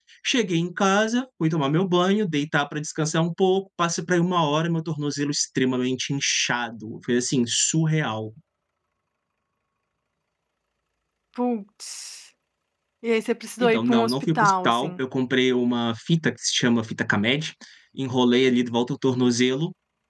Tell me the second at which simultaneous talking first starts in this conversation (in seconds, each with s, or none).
13.6 s